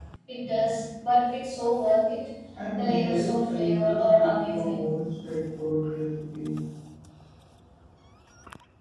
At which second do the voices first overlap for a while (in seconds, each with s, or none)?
2.8 s